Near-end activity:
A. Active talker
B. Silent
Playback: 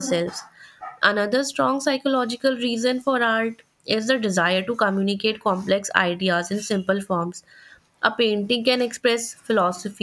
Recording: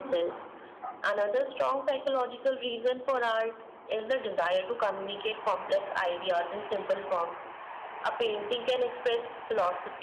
B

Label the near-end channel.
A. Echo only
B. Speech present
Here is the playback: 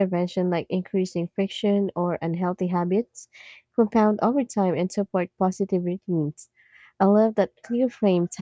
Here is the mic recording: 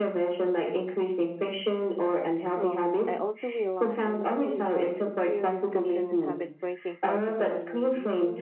B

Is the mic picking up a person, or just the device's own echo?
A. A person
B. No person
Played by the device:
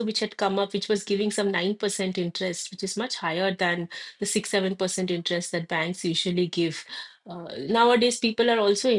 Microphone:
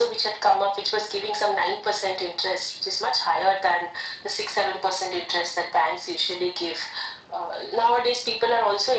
B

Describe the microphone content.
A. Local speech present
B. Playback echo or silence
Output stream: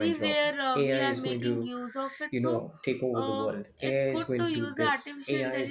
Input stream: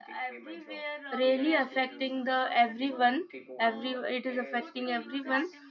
A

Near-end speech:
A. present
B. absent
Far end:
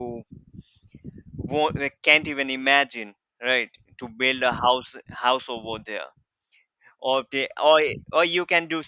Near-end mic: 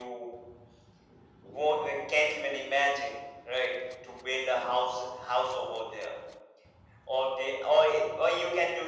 B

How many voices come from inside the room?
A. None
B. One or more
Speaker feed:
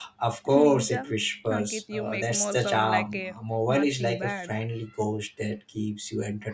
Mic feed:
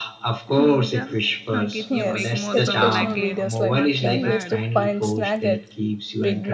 B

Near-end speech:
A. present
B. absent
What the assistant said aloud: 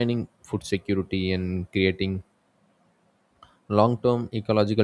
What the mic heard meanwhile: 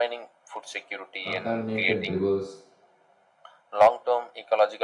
A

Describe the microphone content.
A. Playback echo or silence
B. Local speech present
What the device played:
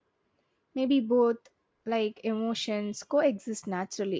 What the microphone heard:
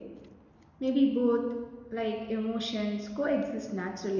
A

